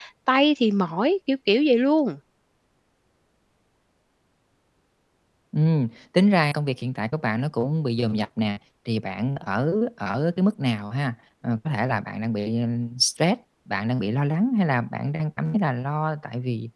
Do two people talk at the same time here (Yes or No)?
No